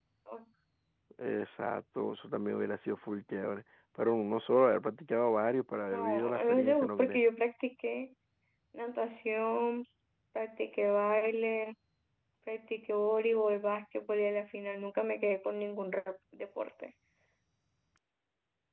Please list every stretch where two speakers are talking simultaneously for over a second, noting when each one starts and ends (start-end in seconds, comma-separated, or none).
5.9-7.2